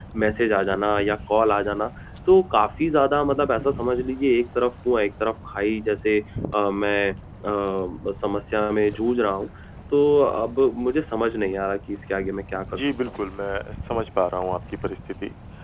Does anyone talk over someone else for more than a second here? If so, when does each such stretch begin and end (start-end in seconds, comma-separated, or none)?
none